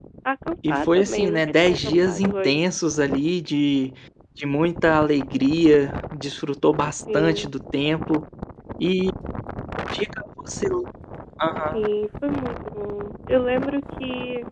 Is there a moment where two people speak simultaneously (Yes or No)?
Yes